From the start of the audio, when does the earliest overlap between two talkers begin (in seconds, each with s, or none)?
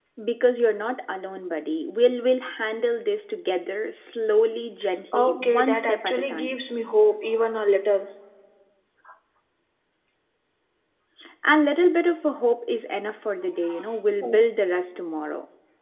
5.1 s